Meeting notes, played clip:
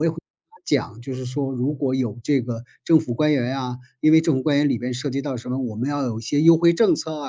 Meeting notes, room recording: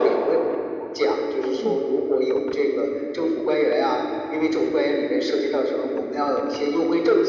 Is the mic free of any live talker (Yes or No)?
No